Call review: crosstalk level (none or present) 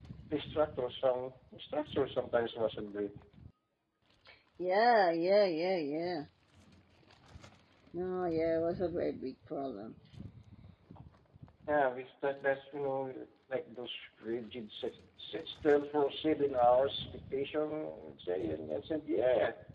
none